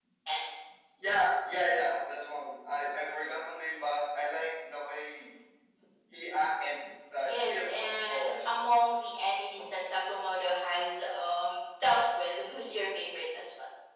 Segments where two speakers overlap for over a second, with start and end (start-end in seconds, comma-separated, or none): 7.2-8.6